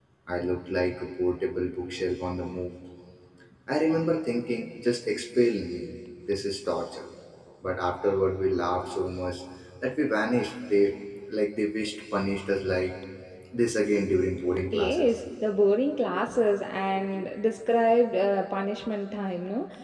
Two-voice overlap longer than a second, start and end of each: none

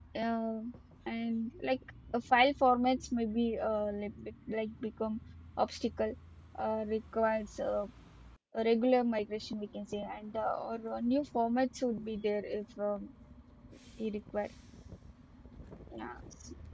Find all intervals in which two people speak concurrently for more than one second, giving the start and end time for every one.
none

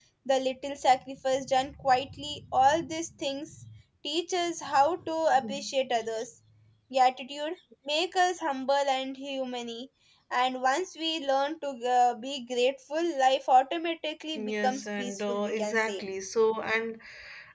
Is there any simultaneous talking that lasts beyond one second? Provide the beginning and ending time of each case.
14.3-16.0

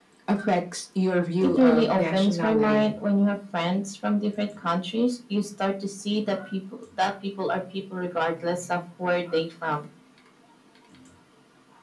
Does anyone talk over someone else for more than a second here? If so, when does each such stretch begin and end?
1.4-2.9

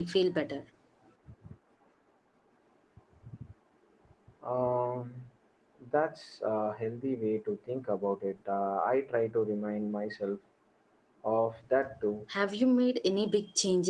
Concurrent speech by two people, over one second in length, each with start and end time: none

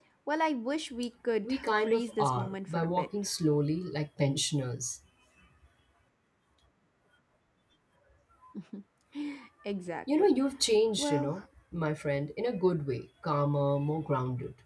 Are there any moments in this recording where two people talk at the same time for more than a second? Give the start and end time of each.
1.4-3.1

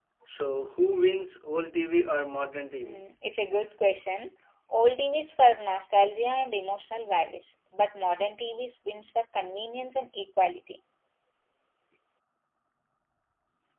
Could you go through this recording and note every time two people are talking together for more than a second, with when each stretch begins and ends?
none

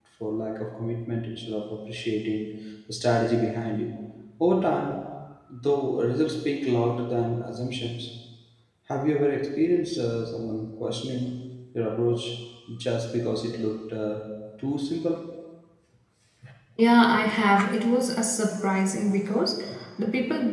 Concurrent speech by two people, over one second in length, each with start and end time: none

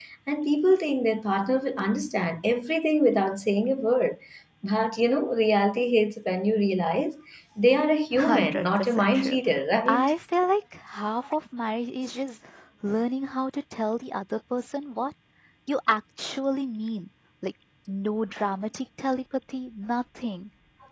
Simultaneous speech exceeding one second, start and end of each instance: 8.2-9.4

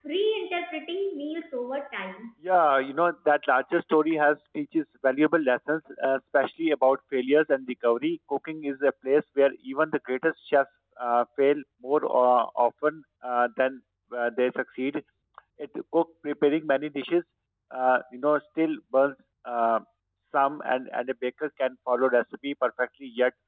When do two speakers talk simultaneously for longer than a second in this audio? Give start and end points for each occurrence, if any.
none

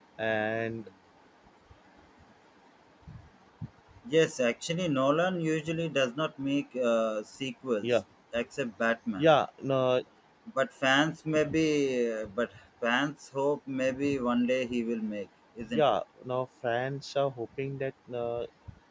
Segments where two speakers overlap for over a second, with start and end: none

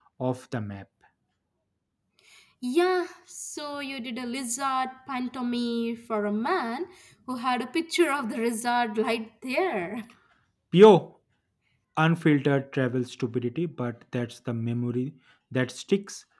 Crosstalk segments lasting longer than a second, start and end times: none

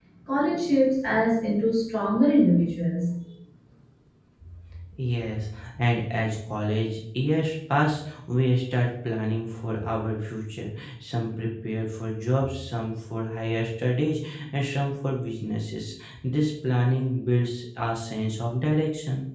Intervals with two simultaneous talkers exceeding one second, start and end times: none

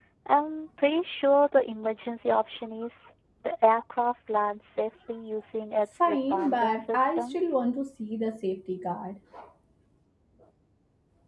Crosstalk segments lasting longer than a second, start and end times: 6.1-7.4

